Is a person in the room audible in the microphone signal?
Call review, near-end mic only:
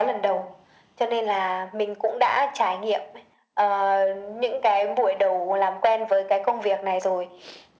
No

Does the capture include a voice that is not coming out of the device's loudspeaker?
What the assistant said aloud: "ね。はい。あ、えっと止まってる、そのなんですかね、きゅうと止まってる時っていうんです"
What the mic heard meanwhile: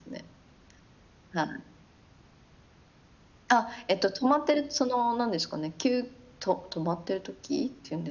No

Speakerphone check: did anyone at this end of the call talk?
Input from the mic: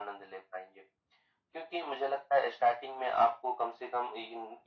No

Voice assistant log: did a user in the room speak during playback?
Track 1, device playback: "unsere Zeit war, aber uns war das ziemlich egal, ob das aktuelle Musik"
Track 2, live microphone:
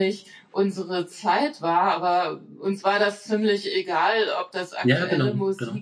Yes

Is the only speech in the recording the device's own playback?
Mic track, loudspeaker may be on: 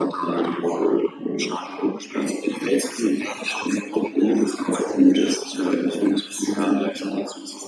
Yes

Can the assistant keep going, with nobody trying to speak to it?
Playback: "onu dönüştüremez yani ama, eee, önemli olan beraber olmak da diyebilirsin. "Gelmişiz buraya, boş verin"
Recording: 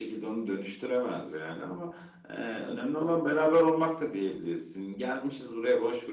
Yes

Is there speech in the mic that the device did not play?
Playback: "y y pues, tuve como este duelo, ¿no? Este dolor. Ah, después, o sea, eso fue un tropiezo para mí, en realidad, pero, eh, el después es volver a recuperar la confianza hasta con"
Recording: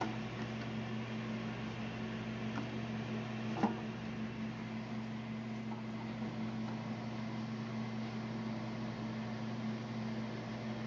No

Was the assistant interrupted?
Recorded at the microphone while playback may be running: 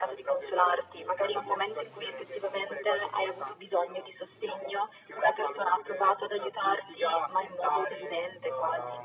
No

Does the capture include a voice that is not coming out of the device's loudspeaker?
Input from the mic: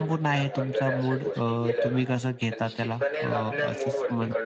Yes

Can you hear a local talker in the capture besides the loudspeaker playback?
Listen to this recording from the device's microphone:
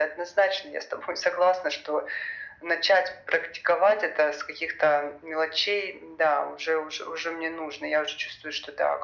No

